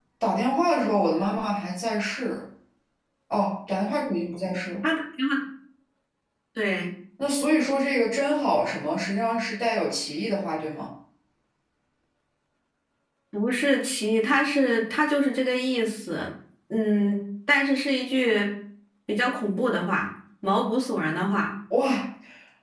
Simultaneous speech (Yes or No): No